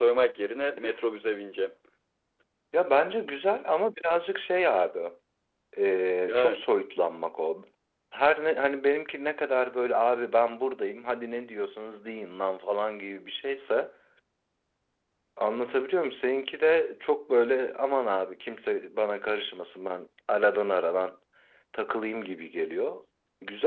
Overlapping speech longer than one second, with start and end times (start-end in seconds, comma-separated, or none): none